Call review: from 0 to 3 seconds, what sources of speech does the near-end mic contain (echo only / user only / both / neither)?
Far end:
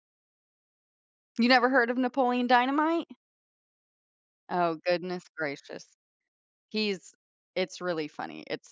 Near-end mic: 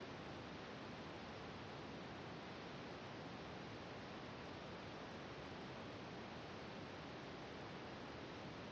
neither